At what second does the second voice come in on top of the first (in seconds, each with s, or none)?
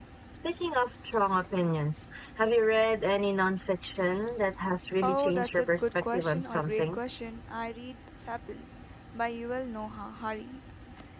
5.0 s